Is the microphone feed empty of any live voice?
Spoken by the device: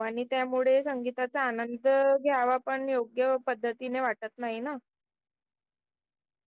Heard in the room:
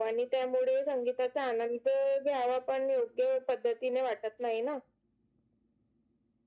Yes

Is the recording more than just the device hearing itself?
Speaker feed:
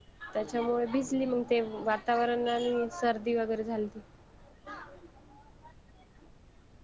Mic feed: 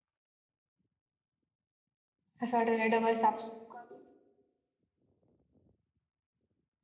Yes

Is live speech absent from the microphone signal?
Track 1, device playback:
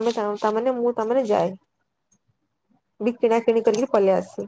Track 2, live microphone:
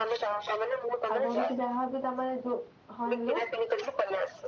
No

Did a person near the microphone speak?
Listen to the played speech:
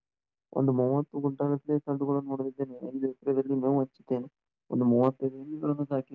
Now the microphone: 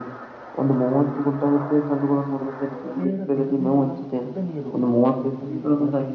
Yes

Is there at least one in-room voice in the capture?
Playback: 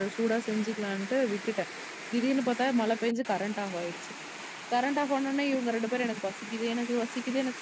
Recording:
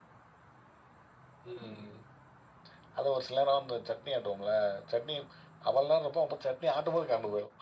Yes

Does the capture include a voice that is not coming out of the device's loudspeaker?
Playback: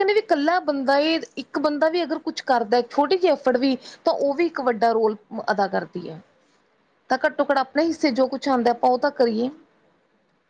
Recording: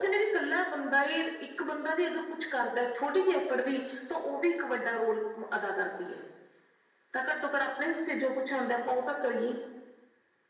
No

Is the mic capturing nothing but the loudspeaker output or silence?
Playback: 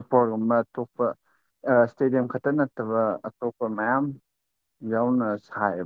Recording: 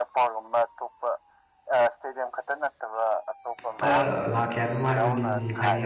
No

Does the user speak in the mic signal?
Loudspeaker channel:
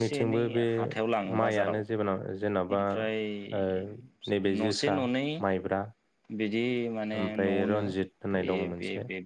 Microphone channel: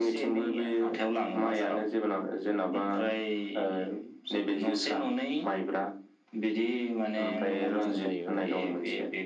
Yes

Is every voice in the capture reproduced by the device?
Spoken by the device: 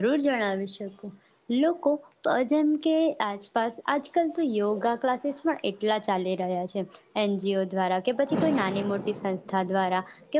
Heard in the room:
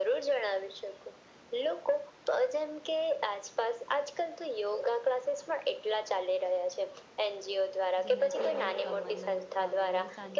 No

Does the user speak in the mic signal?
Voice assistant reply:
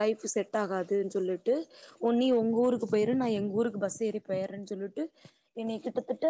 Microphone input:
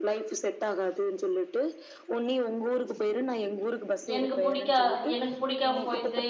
Yes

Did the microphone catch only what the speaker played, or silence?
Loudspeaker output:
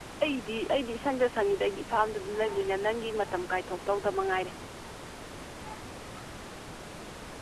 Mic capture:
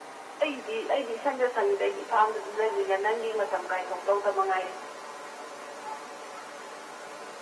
Yes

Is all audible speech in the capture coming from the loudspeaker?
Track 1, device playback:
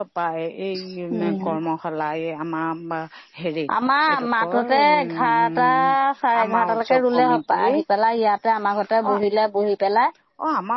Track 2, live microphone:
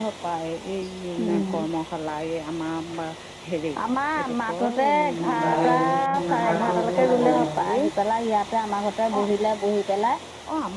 No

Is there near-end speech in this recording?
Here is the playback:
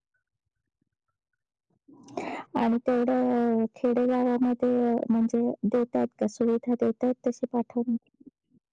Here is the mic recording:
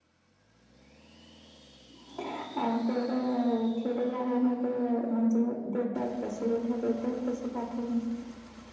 No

